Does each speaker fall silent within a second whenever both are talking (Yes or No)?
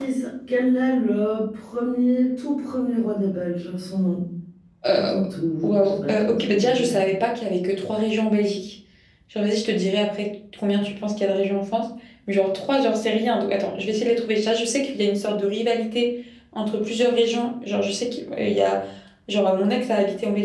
No